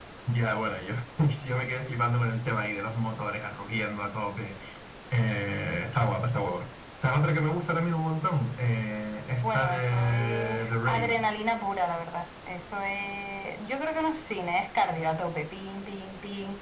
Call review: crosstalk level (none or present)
present